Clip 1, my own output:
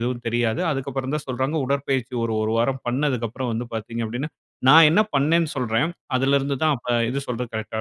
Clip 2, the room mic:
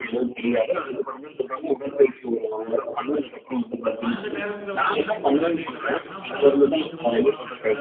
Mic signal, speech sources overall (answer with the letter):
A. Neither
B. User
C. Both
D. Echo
C